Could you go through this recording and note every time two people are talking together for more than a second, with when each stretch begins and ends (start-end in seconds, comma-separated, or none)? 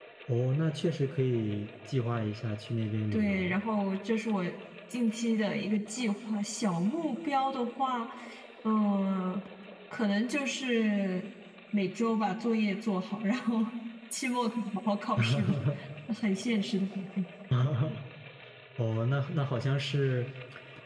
none